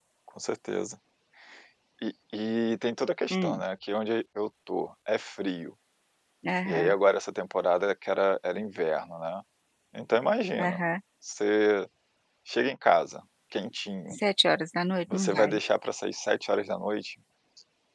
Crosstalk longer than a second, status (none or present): none